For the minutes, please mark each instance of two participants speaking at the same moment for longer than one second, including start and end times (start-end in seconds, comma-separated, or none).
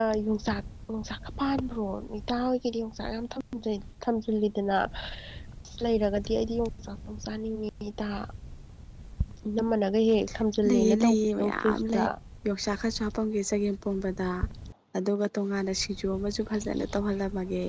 10.7-12.0